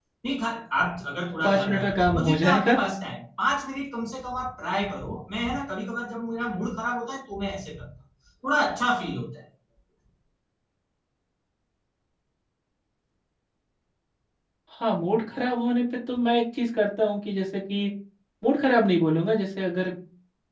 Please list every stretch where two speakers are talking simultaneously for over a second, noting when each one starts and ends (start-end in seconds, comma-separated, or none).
1.4-2.8